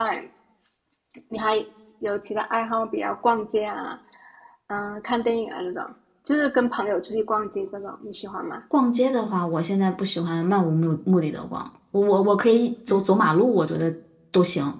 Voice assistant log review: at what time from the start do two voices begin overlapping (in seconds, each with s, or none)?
none